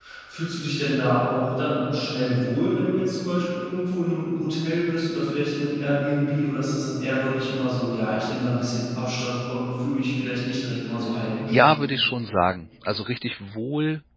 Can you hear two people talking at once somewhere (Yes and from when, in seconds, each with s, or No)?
No